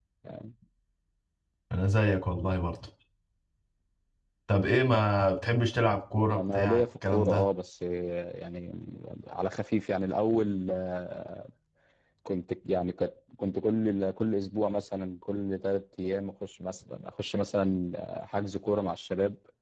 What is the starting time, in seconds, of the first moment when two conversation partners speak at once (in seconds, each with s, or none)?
6.2 s